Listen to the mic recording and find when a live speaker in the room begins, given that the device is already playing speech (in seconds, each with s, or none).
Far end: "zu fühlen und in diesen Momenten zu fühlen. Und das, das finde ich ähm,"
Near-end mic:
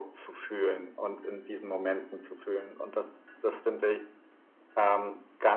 none